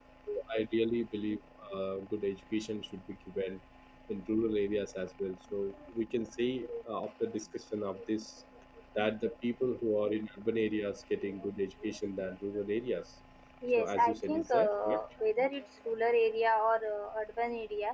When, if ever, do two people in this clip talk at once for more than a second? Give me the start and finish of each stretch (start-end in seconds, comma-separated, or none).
13.8-15.0